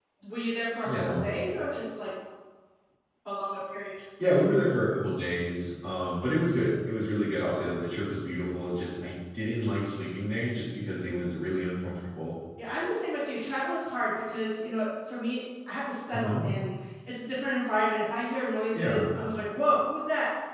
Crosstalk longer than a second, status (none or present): none